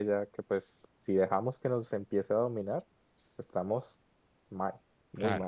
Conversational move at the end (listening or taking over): taking over